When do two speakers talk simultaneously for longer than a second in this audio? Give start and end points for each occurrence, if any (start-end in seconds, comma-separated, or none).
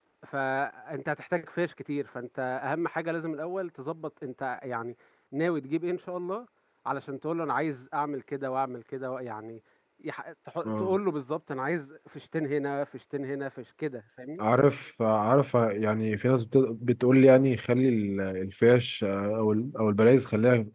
none